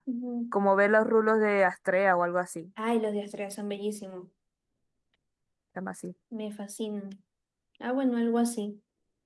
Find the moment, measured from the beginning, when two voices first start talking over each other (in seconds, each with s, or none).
none